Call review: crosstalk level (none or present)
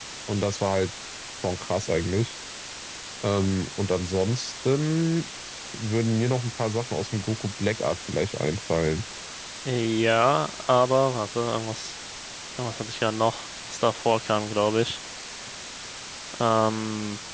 none